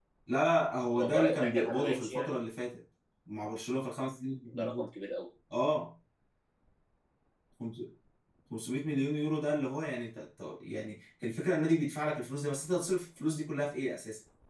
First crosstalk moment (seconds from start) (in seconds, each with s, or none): 1.0 s